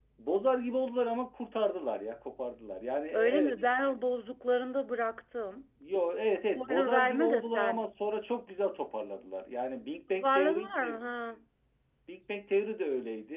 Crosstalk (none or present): present